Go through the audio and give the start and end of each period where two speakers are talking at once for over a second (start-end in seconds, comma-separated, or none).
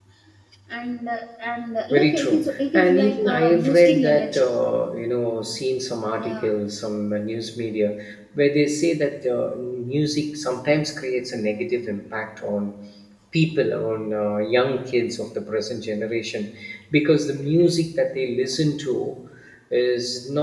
1.9-4.5